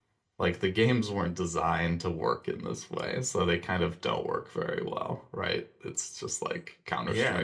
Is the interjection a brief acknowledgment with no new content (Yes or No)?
No